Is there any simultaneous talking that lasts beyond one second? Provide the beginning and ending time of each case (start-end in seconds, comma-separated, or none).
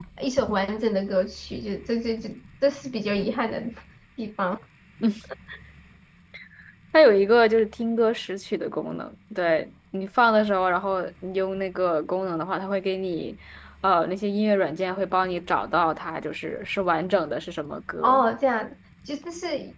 none